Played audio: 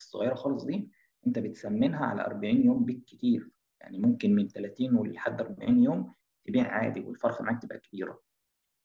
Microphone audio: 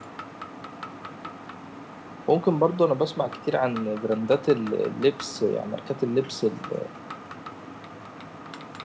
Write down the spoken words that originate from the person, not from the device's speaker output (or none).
ممكن برضه انا بسمع كتير عن براندات ال- اللبس يعني ماركات اللبس ال-